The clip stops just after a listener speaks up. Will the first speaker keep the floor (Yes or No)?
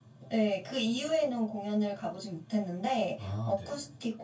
Yes